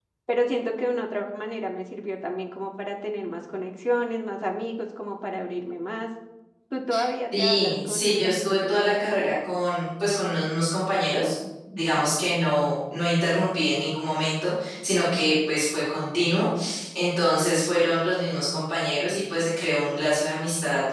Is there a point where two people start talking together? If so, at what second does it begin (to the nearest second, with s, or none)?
7 s